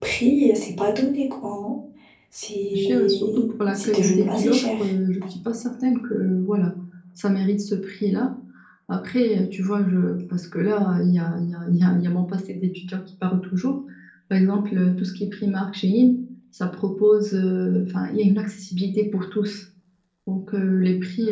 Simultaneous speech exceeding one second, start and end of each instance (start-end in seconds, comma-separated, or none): 2.7-4.7